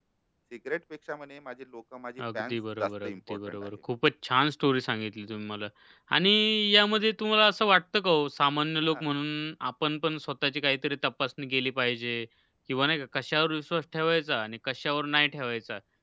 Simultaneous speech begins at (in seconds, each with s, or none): 2.2 s